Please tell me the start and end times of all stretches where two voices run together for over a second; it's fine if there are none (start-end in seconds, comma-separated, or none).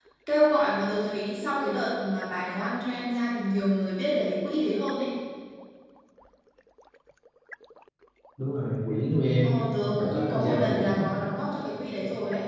9.4-11.1